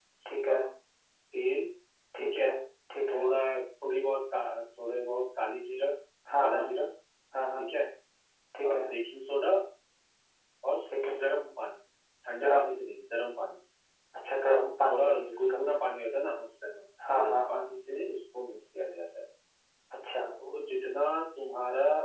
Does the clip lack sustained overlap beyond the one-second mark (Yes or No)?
No